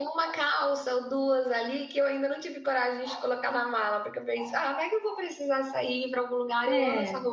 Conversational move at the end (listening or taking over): listening